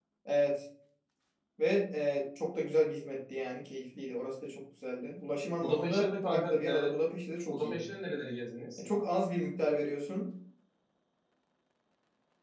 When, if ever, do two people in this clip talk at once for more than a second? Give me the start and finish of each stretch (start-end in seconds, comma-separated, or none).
5.6-6.9